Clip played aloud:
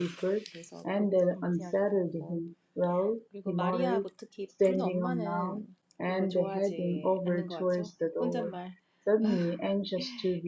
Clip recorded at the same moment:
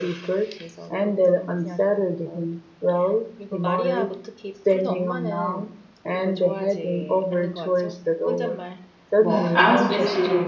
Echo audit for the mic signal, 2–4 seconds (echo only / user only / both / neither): echo only